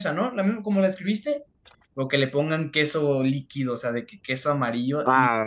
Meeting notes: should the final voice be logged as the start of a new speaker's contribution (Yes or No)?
Yes